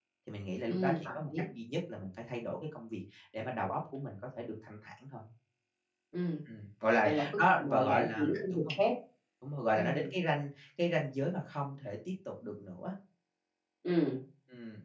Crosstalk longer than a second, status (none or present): present